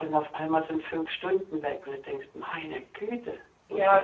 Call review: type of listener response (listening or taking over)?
taking over